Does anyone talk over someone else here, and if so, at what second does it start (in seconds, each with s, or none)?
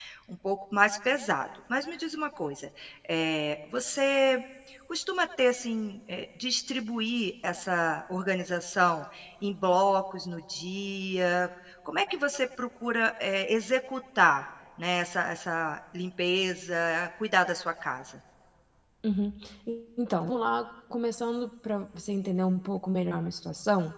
none